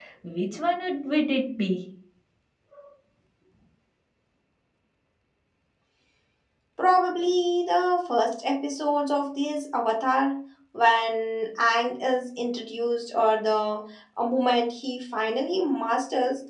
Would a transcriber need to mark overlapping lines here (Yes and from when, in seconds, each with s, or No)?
No